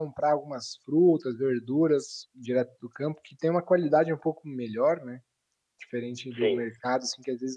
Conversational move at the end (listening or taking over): listening